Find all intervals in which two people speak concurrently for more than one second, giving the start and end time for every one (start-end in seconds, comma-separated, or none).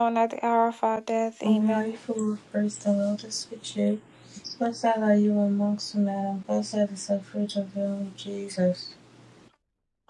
none